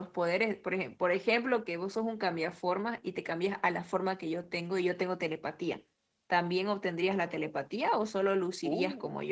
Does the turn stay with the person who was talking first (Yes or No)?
No